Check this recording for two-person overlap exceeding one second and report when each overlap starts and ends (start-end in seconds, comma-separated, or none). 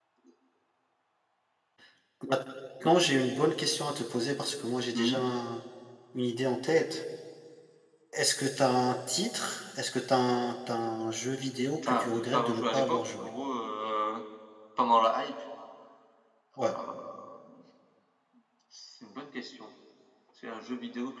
11.8-13.3